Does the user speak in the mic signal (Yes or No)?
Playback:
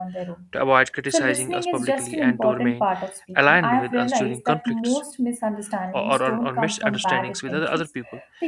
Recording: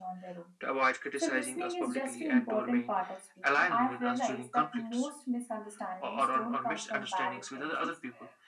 No